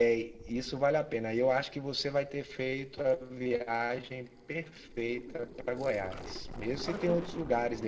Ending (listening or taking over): listening